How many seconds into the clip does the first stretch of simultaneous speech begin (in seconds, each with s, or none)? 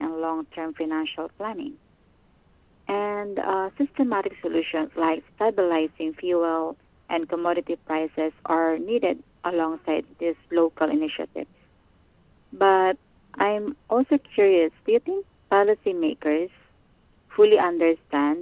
none